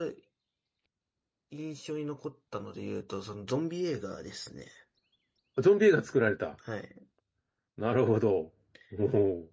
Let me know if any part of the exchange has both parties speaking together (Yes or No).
No